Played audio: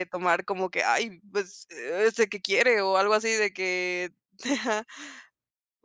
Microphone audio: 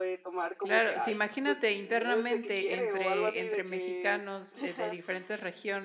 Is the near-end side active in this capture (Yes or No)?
Yes